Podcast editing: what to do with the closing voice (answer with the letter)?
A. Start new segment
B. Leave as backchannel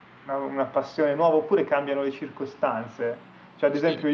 B